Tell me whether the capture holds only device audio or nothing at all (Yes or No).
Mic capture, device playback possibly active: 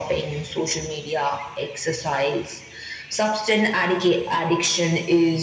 Yes